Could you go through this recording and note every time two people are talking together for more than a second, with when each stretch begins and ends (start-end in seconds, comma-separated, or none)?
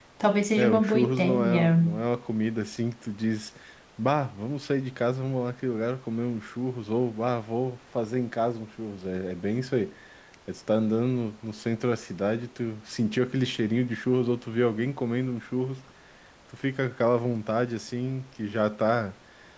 0.6-1.8